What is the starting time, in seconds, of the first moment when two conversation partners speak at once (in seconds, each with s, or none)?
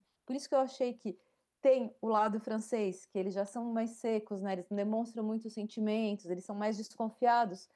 none